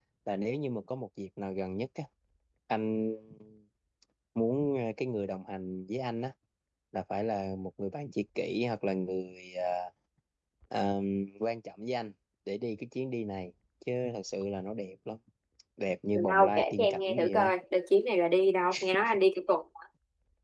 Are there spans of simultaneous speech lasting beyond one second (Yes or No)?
Yes